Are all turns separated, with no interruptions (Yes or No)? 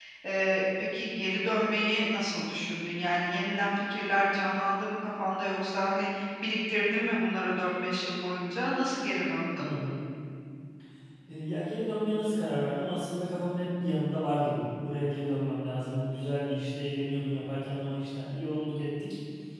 Yes